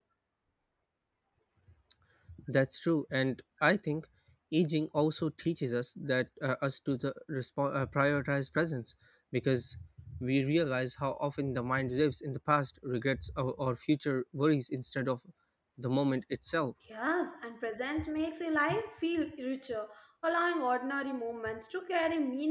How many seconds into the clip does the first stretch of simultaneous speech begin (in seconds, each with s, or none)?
none